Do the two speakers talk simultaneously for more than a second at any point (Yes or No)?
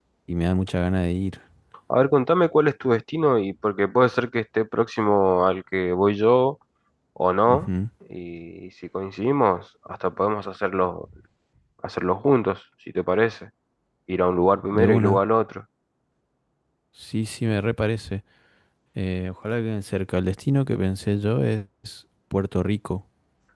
No